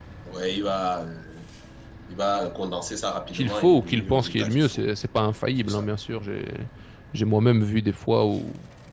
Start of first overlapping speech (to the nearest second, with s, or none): 3 s